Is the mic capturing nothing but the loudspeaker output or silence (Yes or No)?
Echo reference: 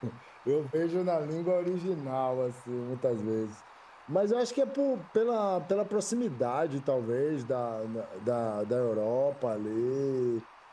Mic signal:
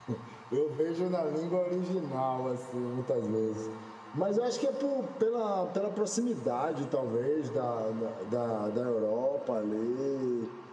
Yes